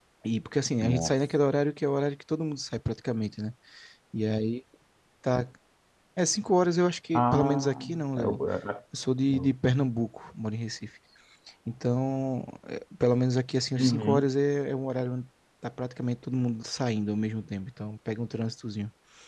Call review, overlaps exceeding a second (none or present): present